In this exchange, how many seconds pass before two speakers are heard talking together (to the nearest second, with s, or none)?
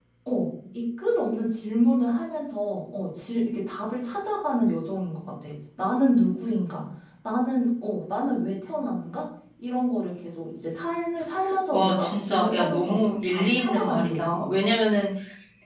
12 s